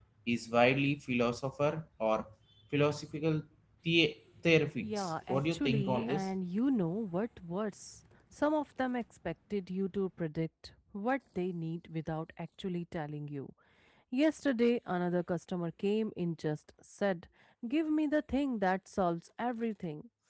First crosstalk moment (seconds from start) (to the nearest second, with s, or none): 5 s